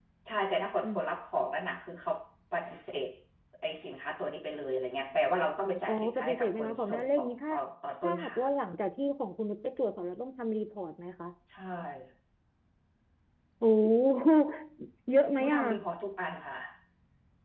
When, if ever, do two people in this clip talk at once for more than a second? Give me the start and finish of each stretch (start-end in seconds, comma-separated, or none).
5.9-7.5